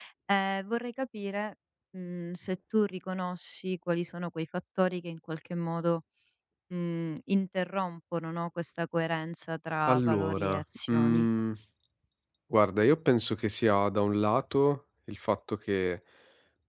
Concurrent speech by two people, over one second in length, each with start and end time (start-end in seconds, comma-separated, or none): 9.9-11.2